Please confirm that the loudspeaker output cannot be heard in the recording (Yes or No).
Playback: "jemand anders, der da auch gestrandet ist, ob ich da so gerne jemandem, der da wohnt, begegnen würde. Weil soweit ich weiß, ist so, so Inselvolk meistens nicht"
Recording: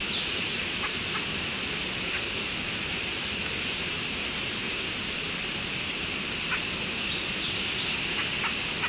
Yes